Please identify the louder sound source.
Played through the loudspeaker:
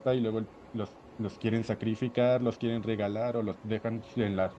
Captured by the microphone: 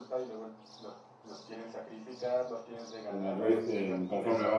user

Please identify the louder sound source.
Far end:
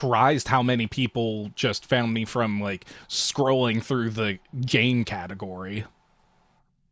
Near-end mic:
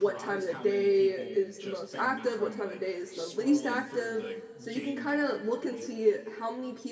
user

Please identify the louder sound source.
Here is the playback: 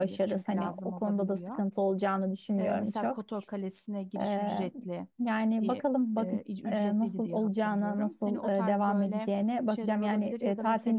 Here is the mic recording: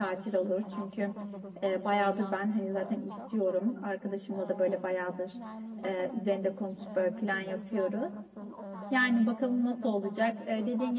user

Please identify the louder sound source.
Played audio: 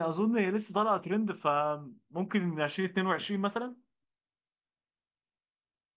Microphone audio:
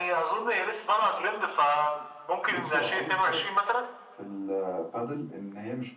echo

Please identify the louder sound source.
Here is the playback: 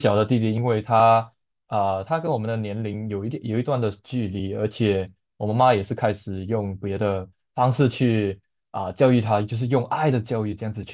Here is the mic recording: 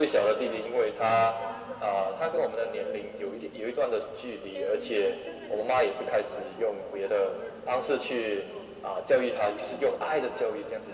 echo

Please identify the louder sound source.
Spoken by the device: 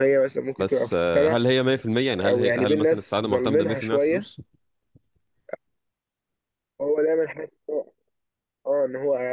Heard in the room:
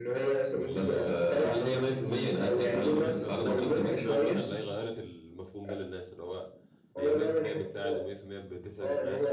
echo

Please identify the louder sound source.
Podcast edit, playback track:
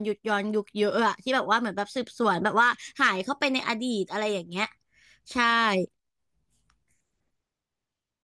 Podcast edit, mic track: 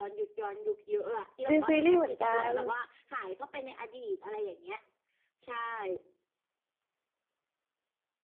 user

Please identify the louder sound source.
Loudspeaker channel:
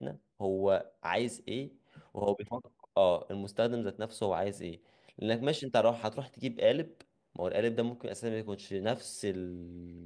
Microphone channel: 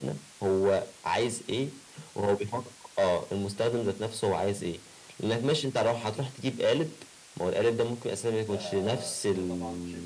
echo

